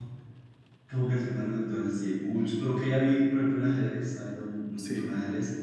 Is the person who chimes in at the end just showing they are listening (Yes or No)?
Yes